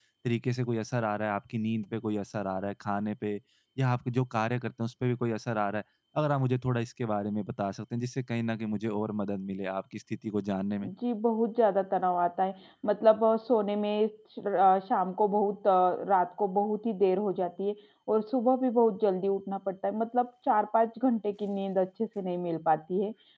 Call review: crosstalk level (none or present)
none